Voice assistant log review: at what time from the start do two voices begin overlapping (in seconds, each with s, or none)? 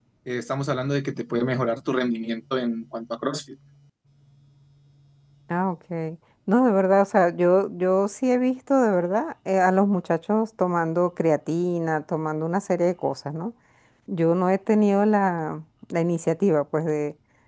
none